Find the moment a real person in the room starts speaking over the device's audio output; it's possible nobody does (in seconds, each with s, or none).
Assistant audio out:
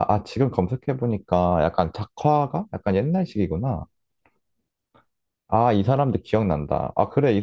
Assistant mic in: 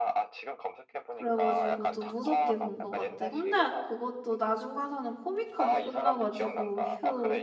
1.1 s